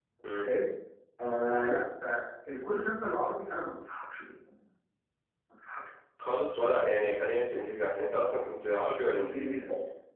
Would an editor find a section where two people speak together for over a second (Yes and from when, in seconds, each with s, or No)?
No